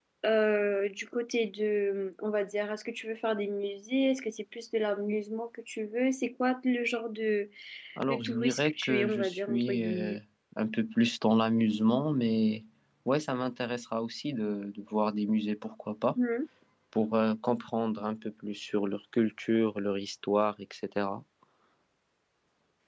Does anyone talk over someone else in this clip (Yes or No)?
Yes